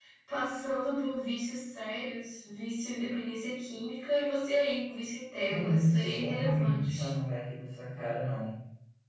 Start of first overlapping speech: 5.5 s

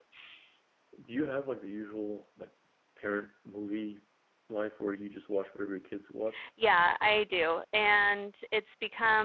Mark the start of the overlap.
none

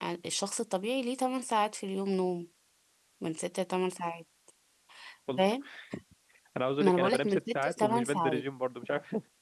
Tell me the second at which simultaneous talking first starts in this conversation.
6.8 s

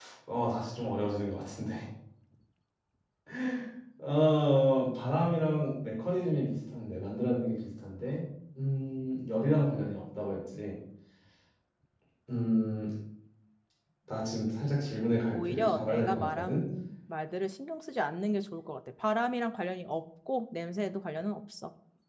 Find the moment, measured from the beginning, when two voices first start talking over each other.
15.3 s

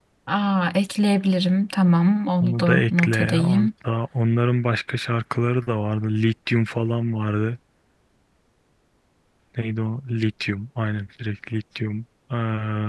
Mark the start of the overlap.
2.4 s

